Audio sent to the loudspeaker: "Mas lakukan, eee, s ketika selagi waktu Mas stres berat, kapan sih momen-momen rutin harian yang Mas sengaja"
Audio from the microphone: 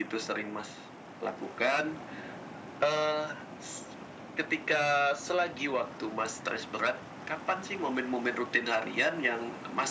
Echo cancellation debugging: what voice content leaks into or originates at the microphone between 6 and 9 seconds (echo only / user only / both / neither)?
echo only